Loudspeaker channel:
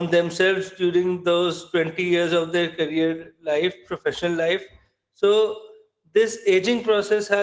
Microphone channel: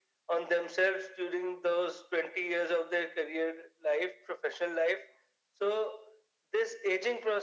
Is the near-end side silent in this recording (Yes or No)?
Yes